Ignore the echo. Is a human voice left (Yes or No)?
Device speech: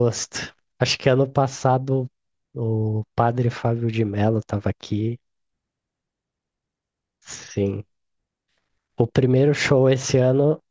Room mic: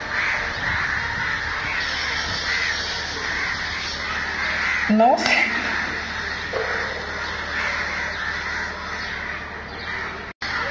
Yes